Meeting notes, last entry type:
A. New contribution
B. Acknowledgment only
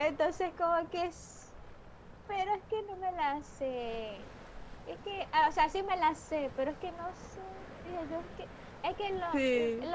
B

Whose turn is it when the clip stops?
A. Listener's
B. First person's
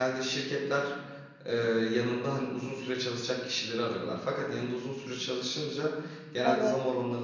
B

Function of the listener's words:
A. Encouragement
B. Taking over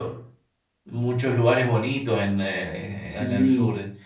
B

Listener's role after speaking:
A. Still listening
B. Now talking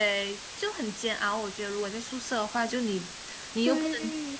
A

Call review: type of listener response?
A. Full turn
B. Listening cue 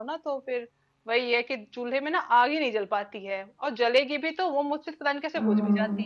B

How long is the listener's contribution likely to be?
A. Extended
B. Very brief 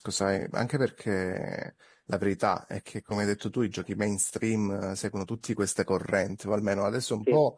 B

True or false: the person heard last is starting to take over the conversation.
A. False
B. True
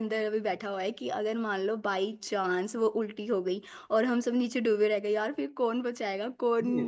B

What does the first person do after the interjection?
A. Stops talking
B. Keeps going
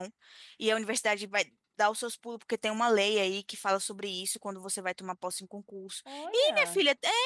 B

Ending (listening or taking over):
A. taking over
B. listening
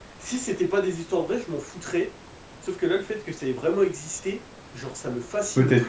A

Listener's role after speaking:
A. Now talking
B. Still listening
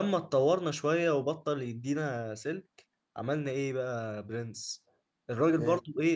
B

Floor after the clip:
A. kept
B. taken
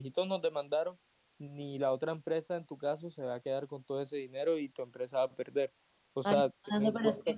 B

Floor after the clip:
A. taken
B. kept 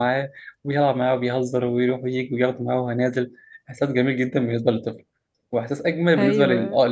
B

